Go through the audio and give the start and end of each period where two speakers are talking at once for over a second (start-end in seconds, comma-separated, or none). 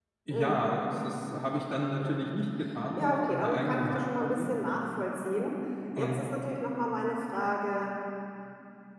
3.0-4.5